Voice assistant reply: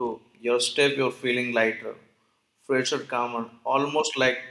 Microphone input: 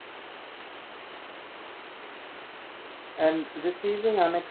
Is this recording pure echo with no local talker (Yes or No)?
No